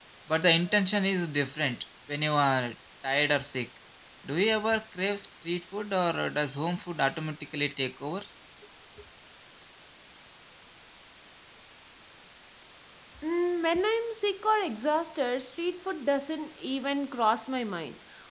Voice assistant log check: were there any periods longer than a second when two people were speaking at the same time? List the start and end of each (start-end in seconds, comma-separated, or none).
none